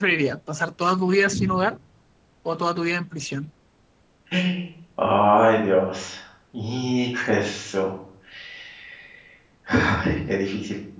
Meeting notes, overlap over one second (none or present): none